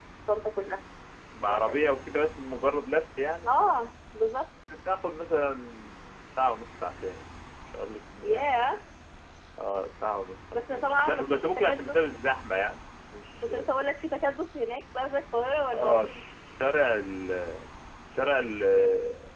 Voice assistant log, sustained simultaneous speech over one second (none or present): present